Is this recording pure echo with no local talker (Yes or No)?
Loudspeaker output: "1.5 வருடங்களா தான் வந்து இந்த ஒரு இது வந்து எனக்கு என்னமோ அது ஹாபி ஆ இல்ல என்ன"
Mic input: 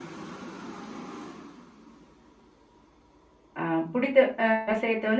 No